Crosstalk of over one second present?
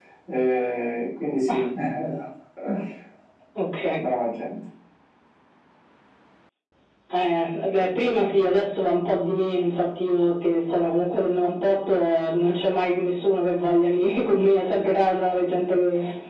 No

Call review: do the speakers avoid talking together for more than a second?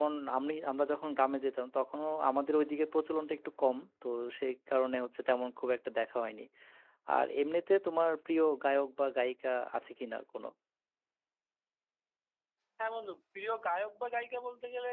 Yes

